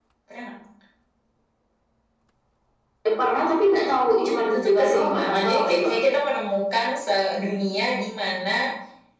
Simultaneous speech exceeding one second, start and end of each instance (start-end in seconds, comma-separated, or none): 4.4-5.9